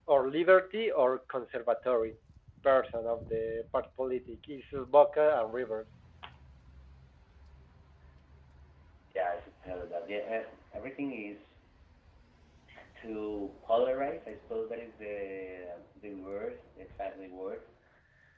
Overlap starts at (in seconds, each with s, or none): none